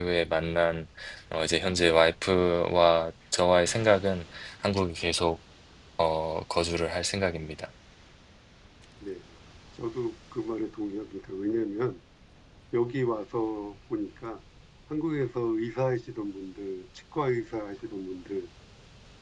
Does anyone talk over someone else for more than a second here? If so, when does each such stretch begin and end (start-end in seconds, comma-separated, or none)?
none